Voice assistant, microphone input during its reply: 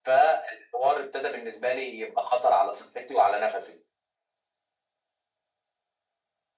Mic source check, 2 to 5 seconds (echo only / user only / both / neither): echo only